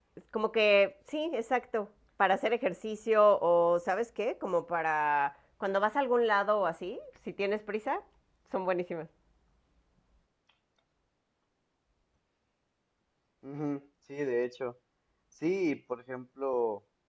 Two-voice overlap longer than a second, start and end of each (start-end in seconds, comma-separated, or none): none